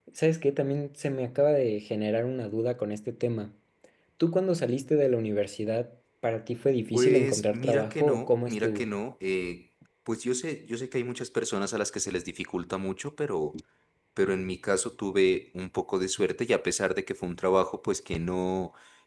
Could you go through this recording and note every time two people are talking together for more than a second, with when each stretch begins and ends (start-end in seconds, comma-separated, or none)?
6.9-8.9